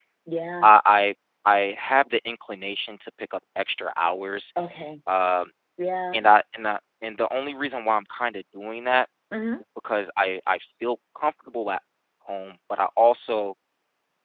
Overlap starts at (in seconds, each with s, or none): none